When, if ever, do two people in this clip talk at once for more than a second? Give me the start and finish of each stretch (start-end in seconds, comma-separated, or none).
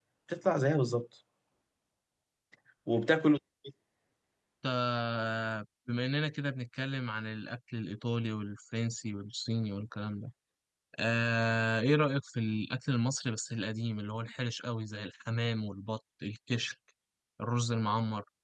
none